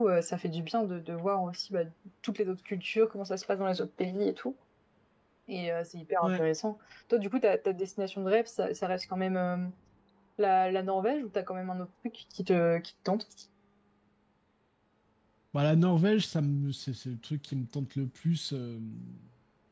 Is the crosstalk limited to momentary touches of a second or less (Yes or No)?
Yes